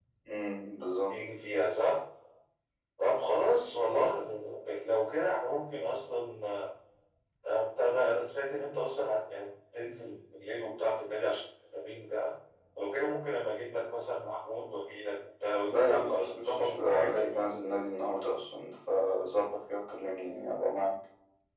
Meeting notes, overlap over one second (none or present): present